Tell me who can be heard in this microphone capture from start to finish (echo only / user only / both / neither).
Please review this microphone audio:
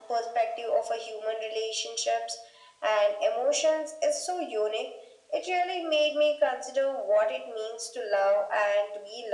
echo only